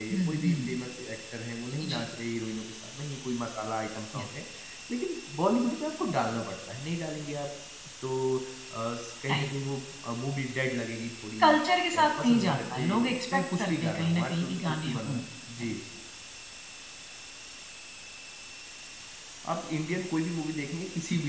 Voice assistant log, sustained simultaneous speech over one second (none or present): present